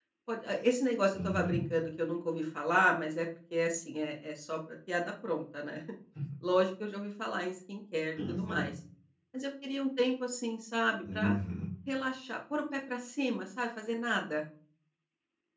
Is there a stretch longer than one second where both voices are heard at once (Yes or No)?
No